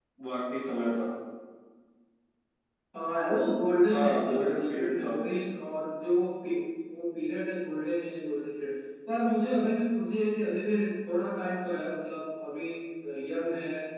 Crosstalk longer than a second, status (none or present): present